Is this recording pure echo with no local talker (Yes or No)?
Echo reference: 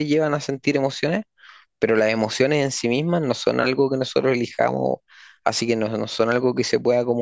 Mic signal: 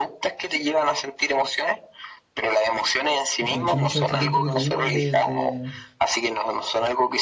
No